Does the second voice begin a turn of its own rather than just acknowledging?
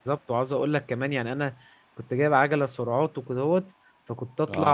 No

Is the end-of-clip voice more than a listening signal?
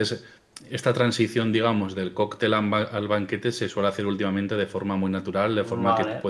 No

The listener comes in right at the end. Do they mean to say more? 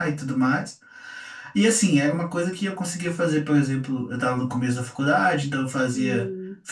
No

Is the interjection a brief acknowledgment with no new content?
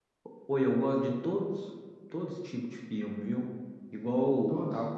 Yes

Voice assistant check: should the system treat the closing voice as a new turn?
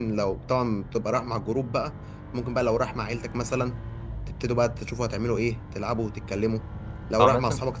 No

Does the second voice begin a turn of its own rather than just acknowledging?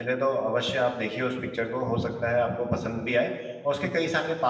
No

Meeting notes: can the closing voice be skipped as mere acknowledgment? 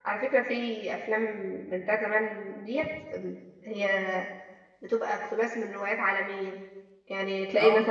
Yes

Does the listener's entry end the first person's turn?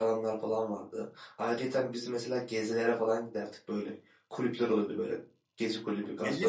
Yes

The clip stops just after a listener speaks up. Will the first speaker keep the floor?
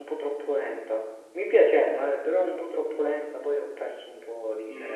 No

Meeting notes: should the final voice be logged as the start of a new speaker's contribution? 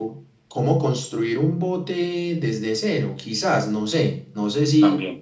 No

